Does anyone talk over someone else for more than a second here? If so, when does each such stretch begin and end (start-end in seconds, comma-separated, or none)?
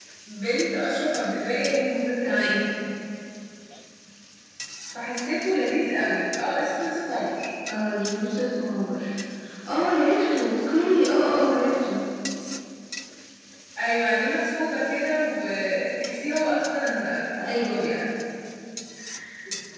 none